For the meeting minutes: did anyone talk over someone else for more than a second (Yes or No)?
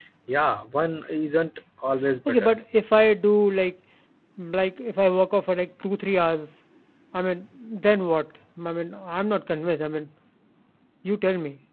No